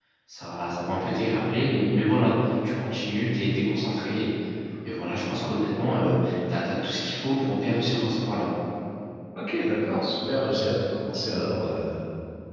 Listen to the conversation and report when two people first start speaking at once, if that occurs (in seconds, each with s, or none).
none